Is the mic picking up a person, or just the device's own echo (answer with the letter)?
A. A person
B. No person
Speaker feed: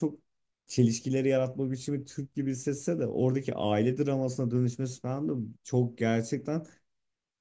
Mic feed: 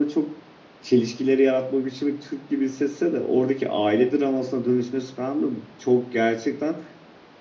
B